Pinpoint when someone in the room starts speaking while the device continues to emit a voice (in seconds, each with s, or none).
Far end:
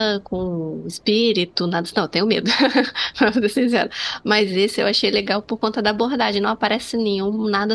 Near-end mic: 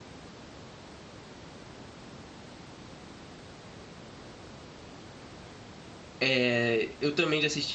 6.2 s